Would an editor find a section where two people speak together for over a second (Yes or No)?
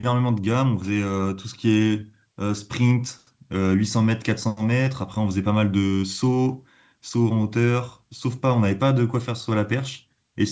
No